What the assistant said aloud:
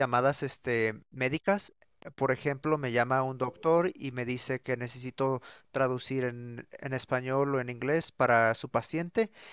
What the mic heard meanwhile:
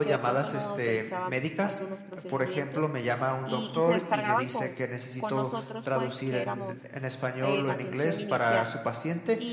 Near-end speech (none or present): present